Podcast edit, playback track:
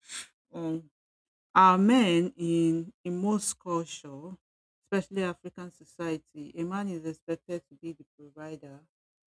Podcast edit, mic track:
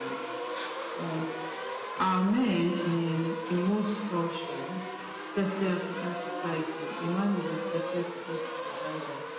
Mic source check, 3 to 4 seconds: echo only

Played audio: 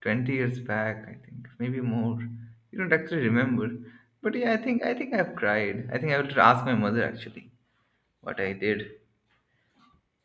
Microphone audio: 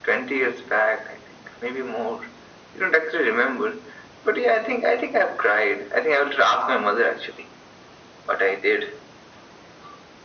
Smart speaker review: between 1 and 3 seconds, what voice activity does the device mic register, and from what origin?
echo only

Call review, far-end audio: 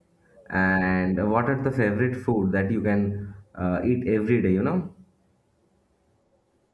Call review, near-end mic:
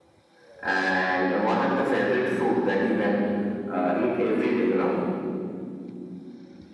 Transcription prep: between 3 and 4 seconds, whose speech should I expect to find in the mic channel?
echo only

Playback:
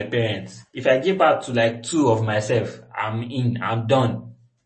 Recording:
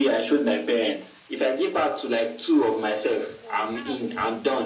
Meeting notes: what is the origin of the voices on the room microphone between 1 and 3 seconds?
echo only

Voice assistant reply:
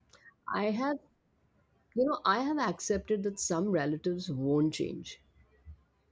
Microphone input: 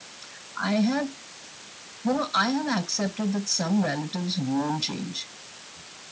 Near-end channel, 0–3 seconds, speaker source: echo only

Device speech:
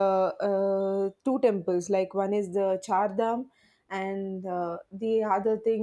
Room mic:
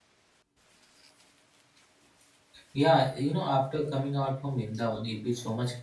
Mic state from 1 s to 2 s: neither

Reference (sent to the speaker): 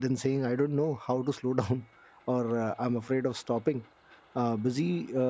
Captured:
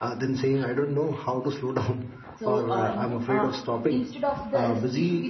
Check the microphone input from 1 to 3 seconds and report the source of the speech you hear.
both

